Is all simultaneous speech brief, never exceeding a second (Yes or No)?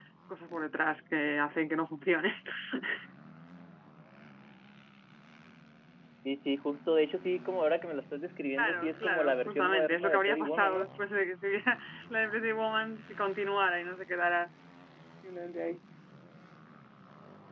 No